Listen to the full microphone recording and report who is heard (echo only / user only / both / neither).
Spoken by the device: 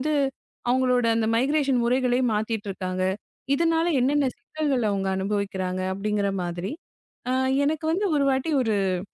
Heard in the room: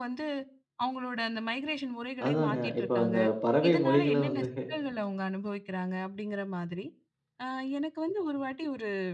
both